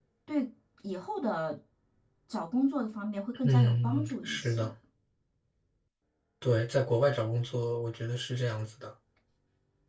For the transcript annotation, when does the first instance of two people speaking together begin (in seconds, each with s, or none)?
3.4 s